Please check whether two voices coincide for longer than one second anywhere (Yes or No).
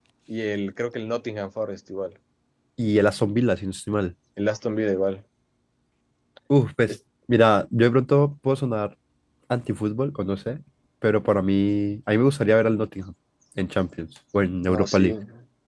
No